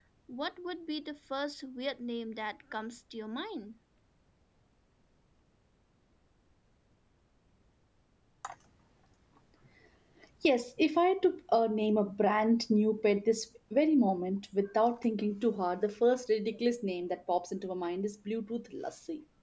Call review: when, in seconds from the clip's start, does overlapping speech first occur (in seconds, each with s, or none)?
none